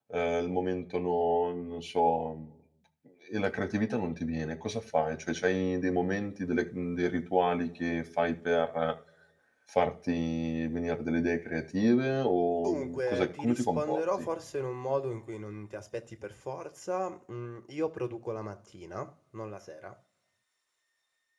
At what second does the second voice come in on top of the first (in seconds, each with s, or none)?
12.6 s